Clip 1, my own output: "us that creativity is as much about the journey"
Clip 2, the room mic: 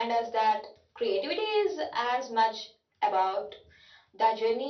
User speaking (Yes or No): No